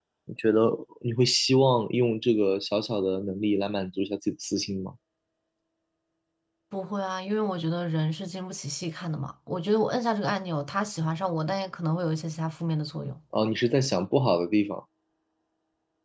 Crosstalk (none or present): none